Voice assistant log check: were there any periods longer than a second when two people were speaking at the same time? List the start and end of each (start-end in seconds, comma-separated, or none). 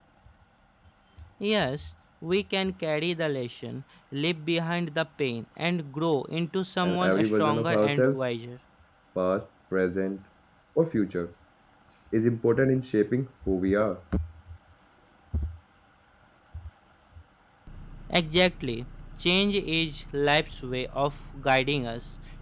6.8-8.2